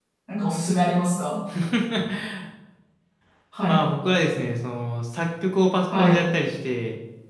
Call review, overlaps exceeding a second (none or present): none